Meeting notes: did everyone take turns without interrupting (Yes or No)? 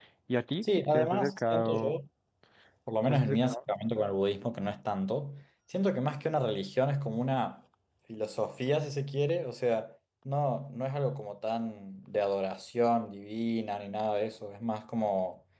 No